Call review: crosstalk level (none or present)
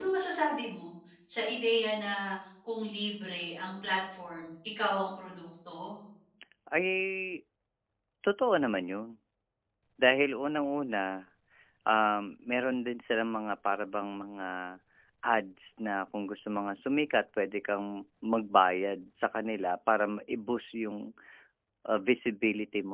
none